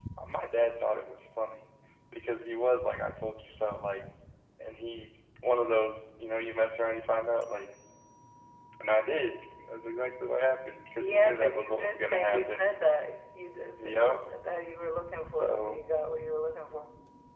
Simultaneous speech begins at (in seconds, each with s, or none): 11.0 s